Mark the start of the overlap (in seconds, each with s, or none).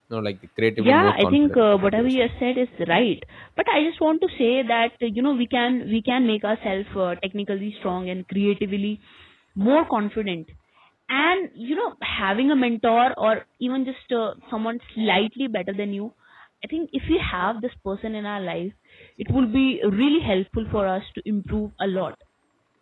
0.8 s